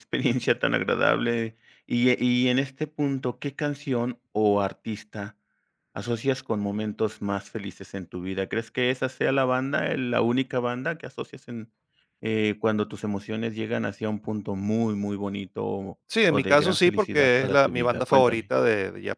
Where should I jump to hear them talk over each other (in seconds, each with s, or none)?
16.1 s